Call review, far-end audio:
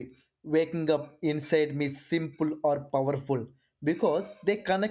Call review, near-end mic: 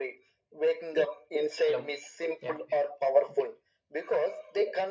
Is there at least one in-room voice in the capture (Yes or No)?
Yes